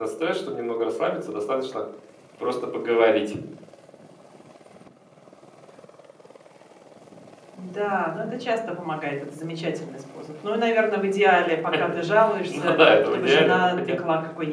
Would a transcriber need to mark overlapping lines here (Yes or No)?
Yes